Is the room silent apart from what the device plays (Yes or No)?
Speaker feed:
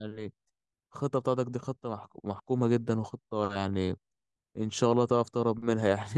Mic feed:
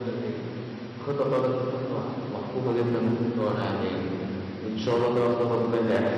Yes